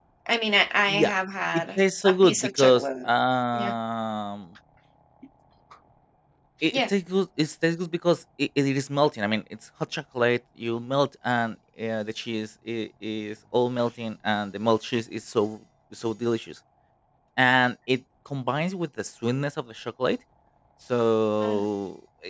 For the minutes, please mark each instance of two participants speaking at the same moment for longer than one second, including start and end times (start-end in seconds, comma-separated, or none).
1.8-3.1